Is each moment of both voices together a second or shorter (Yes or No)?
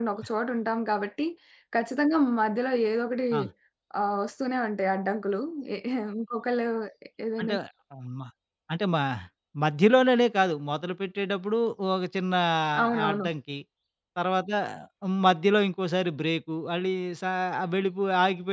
Yes